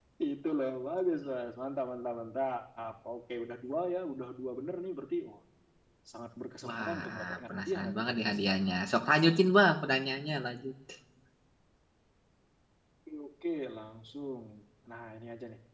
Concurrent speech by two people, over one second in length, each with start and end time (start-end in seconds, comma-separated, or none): 6.7-8.6